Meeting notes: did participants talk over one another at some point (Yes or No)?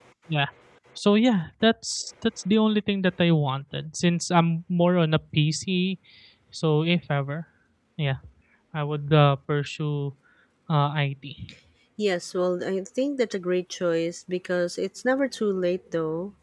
No